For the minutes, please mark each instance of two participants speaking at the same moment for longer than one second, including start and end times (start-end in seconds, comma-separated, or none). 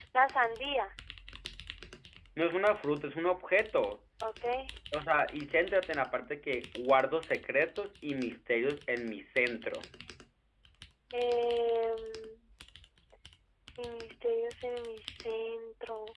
none